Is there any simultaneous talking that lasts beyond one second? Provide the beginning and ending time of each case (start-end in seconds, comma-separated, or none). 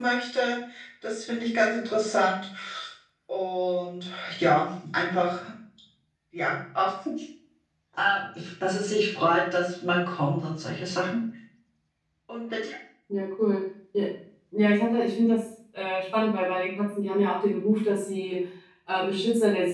none